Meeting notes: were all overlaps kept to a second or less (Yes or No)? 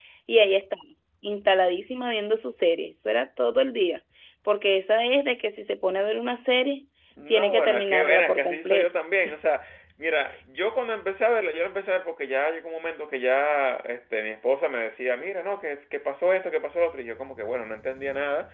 No